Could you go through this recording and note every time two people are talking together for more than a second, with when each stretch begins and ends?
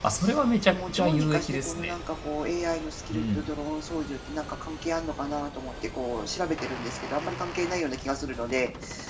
0.7-1.9

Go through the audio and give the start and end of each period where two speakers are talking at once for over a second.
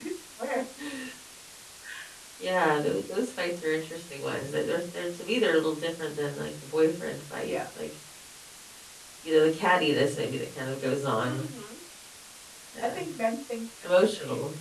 none

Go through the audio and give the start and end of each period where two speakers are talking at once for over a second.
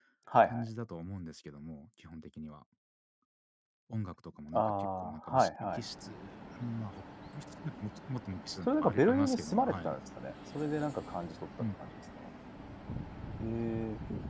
4.5-5.8, 8.7-9.9

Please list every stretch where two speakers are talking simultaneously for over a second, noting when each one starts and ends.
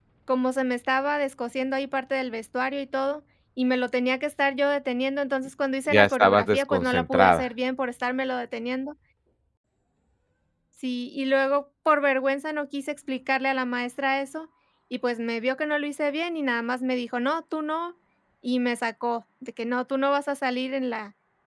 5.9-7.5

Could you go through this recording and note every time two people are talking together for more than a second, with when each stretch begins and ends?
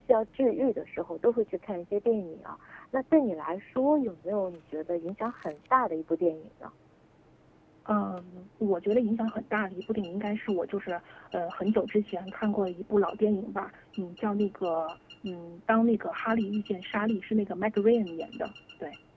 none

